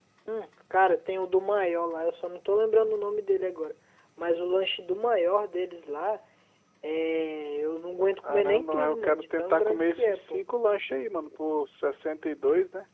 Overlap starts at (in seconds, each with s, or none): 8.2 s